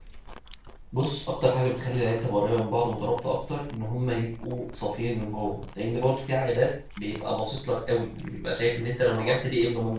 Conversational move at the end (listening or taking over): listening